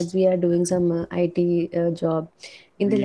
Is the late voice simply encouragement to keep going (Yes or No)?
Yes